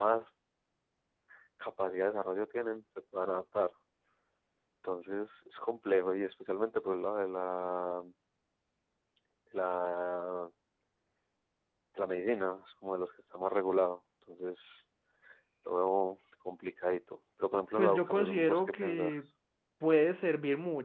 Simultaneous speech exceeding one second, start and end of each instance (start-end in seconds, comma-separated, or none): 17.8-19.1